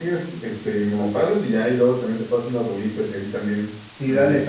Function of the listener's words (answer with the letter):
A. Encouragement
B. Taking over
B